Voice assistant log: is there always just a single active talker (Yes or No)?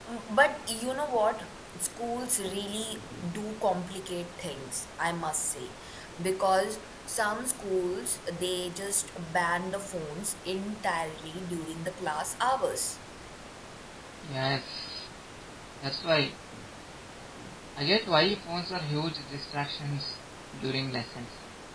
Yes